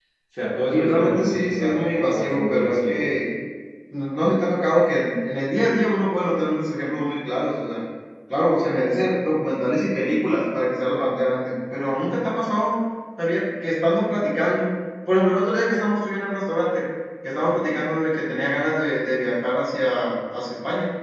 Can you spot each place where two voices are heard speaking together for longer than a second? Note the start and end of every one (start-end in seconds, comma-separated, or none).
0.7-3.0